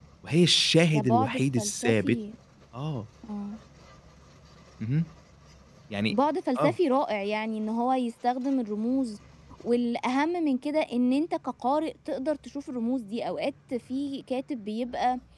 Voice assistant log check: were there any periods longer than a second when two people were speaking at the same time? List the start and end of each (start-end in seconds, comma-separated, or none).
0.9-2.2